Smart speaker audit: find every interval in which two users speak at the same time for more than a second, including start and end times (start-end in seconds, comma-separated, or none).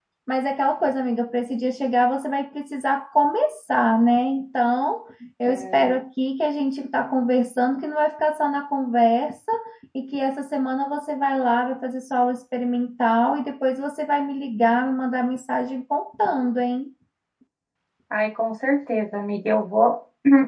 none